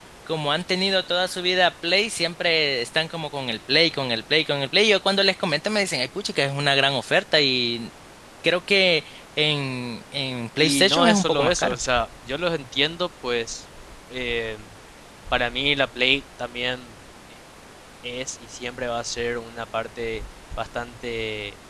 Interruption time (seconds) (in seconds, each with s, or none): 10.6 s